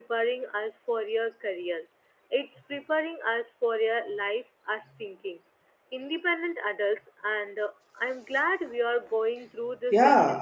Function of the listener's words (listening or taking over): taking over